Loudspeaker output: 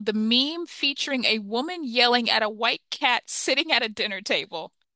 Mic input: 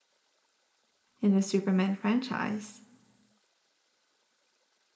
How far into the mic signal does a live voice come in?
1.2 s

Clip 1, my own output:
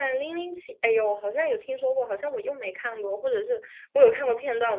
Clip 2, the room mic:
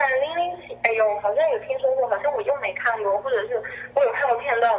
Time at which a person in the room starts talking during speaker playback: none

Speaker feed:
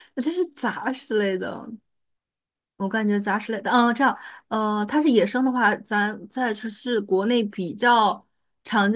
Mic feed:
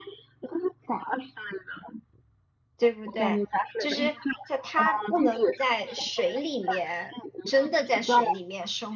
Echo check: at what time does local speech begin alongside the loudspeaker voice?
2.8 s

